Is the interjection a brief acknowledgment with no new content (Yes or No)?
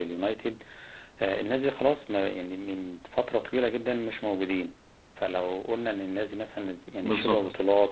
Yes